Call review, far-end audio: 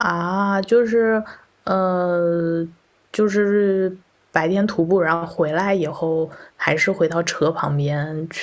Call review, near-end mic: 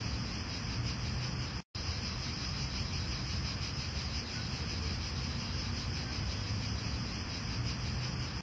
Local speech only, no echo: none

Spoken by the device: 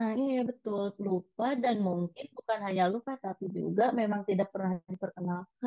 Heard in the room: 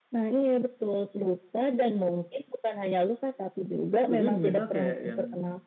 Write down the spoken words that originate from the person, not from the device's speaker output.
Tapi misal kayak yang

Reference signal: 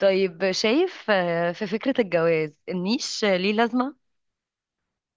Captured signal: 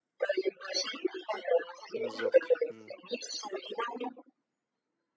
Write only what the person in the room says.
بالظبط امم

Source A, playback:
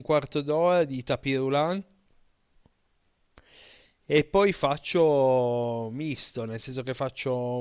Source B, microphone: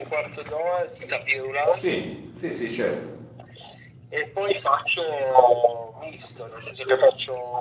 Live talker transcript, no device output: Sì, sì, sì, certo,

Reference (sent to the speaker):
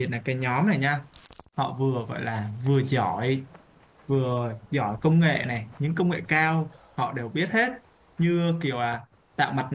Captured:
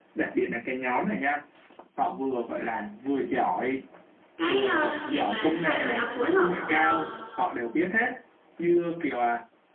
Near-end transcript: cái ờ, gì mà hai người đó phối hợp ờ,

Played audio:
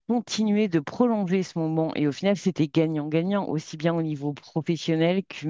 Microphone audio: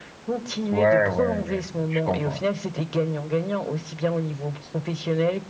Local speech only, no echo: Ouais, ouais, ouais, je comprends.

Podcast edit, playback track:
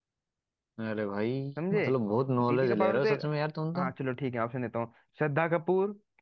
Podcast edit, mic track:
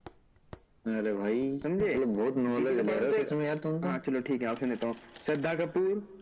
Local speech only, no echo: none

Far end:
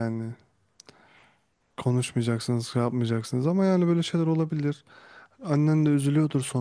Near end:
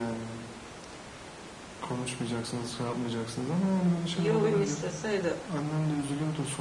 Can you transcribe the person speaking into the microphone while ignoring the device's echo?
İyi olayım isteseydi

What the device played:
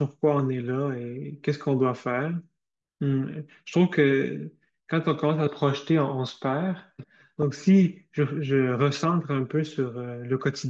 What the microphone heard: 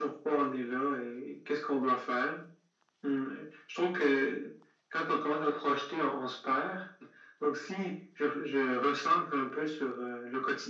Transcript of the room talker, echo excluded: none

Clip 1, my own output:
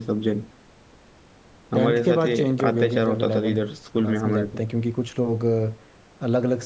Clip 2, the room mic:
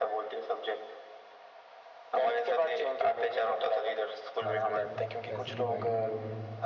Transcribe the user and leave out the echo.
चले जाते हैं तो ऐसे डिवाइड हो गया होगा

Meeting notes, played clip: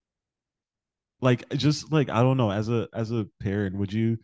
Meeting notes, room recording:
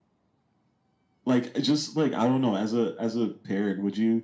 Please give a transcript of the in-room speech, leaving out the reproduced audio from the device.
none

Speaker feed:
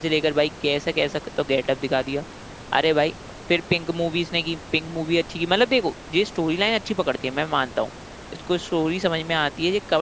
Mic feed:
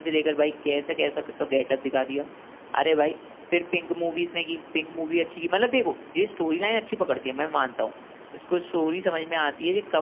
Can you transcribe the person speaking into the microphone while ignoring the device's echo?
none

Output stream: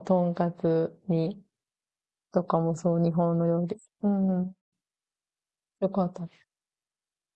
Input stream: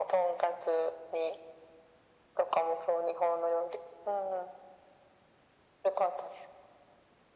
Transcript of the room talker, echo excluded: none

